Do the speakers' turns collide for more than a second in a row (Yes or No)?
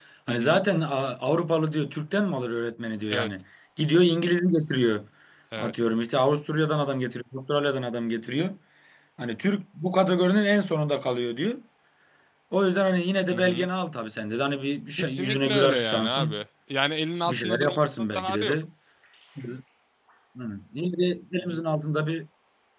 Yes